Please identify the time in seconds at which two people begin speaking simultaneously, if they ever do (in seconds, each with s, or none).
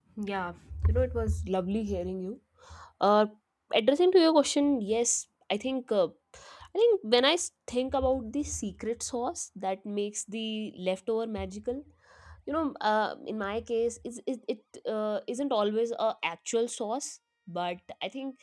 none